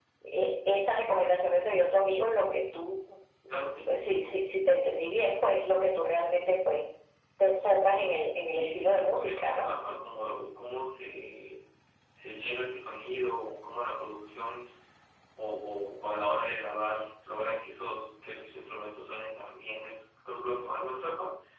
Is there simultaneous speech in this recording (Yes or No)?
Yes